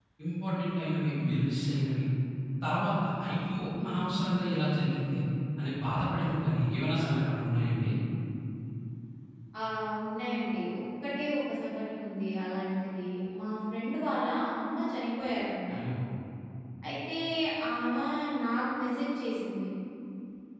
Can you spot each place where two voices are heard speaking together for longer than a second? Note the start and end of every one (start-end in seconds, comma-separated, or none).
none